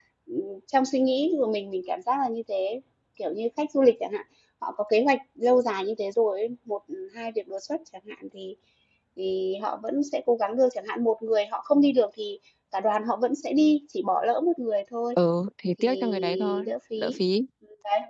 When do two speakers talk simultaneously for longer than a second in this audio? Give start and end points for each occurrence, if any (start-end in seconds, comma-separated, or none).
15.8-17.2